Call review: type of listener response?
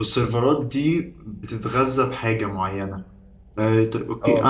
listening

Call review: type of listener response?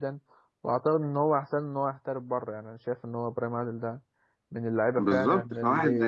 taking over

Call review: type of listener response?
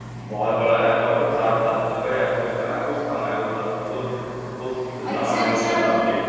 taking over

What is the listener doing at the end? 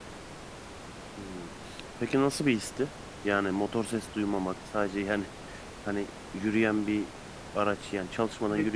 taking over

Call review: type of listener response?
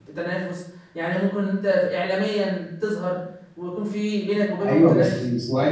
taking over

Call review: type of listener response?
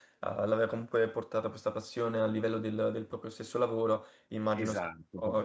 taking over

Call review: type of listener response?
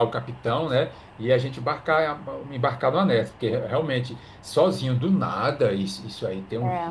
listening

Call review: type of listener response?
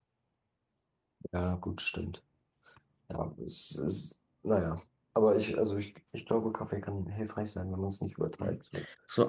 taking over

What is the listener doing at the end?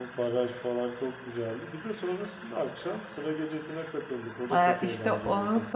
taking over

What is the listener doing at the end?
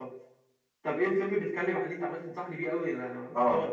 taking over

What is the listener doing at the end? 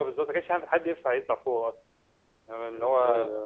taking over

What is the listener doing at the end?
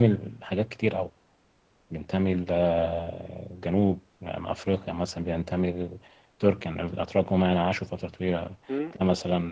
listening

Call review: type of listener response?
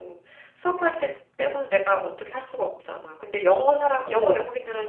listening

